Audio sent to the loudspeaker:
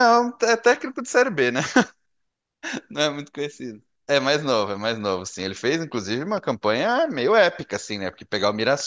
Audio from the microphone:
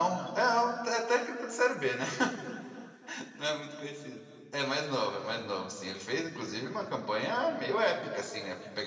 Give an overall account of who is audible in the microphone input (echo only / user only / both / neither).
echo only